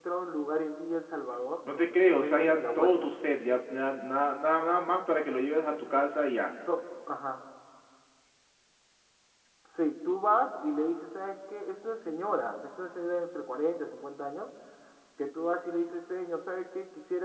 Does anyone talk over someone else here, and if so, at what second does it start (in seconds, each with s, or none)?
1.7 s